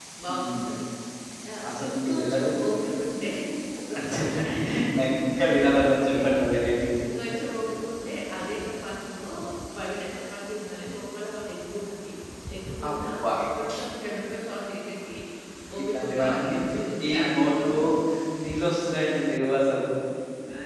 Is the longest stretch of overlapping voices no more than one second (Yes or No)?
No